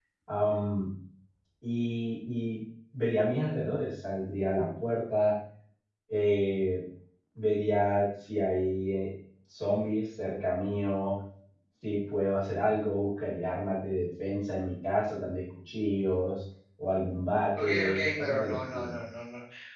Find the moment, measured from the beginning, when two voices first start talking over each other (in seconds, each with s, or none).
17.6 s